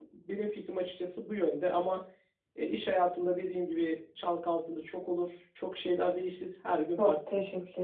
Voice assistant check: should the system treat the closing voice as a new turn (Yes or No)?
Yes